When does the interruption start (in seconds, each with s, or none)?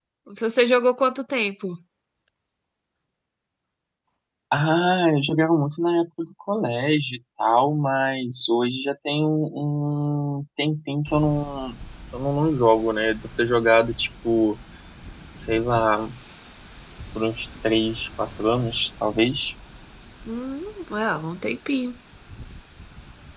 none